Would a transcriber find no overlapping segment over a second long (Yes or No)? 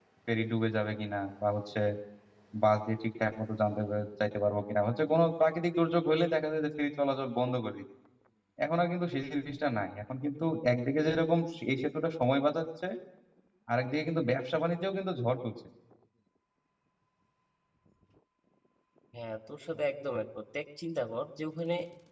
Yes